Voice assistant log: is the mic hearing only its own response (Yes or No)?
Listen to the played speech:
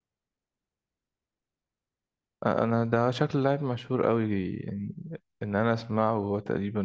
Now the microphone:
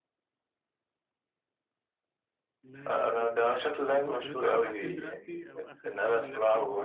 No